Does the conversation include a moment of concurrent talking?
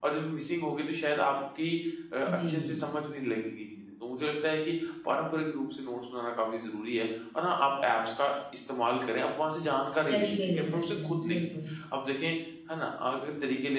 Yes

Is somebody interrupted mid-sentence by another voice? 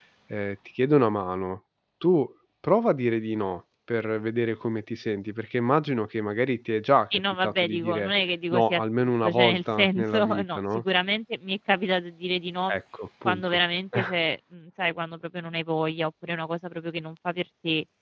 Yes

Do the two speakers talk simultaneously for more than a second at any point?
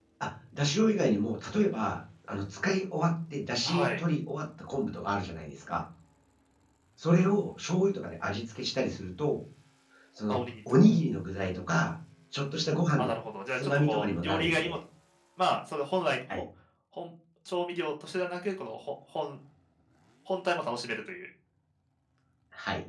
Yes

